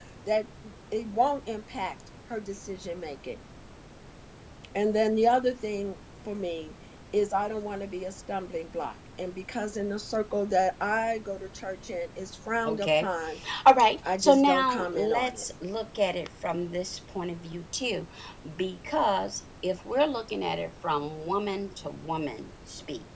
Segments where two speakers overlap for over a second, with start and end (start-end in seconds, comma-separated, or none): 14.2-15.4